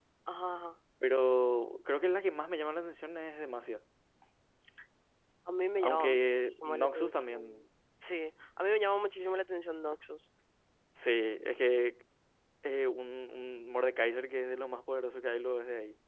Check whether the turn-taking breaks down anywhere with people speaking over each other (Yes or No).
Yes